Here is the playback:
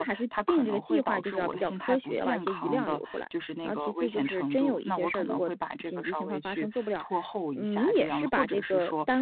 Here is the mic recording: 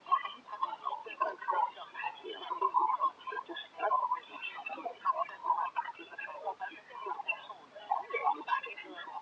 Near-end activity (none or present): none